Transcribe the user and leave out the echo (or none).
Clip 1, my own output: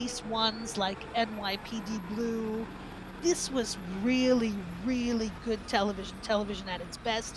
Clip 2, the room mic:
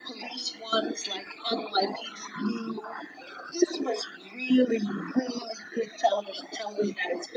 none